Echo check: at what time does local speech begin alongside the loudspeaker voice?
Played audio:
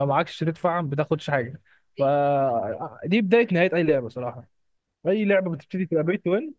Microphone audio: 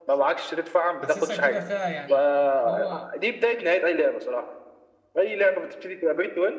1.0 s

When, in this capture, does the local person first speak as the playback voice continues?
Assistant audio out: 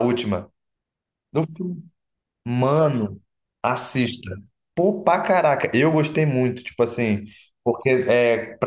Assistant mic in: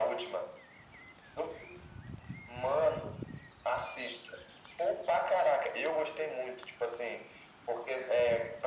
none

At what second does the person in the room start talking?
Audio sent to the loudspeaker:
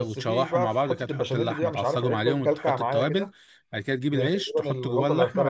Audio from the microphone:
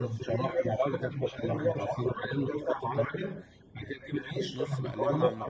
4.5 s

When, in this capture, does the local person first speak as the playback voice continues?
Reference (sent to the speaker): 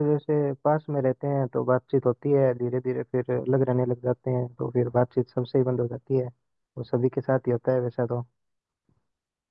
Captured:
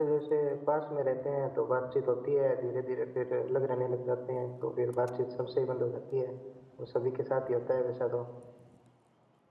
none

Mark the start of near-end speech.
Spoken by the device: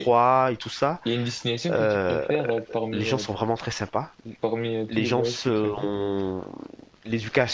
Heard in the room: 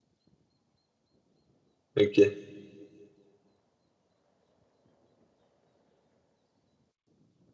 1.9 s

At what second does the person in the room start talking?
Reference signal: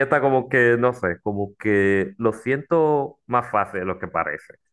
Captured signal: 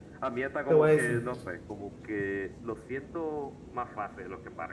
0.7 s

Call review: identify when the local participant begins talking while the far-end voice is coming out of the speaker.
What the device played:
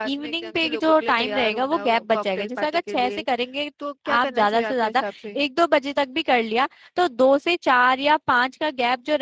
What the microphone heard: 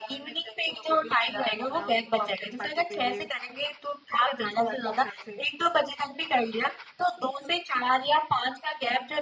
none

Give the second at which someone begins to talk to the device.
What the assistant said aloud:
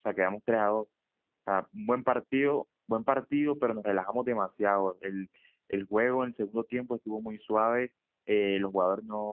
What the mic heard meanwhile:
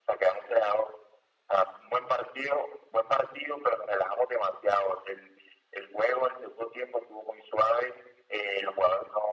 none

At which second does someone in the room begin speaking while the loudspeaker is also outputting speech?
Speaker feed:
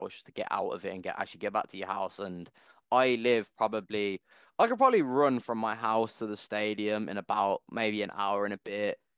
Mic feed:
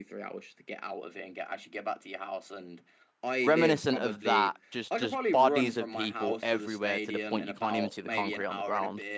3.4 s

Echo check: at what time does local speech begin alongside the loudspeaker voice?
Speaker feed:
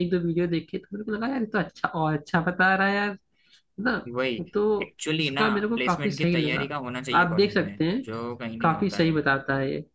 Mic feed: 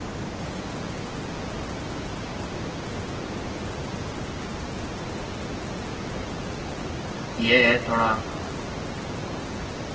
7.4 s

